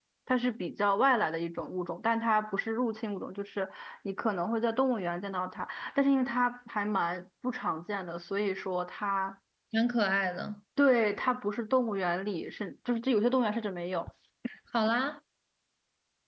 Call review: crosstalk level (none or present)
none